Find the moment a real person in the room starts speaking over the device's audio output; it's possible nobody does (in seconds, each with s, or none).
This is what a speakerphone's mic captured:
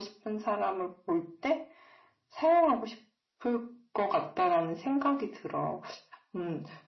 none